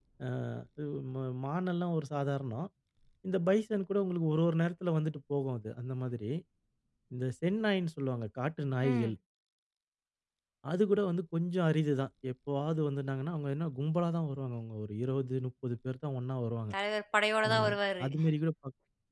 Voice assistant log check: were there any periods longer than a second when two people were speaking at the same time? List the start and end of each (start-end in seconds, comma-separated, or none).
none